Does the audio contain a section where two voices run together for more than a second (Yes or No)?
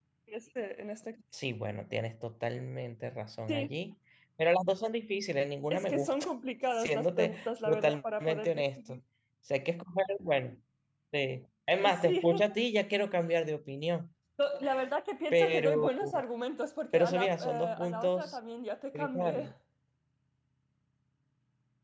Yes